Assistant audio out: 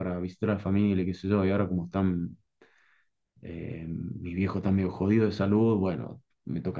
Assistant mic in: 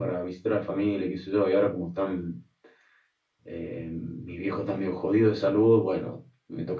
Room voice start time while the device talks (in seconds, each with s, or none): none